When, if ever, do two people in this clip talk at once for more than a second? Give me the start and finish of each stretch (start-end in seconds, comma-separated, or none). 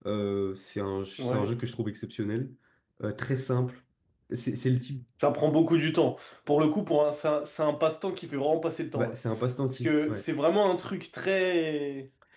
none